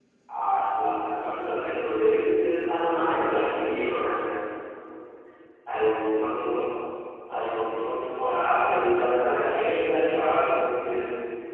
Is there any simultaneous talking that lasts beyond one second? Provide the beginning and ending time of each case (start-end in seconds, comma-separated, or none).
2.8-4.2